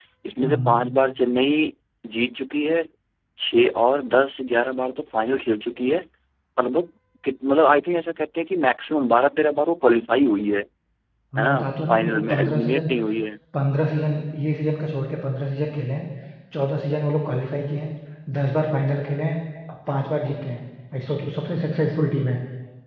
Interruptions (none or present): present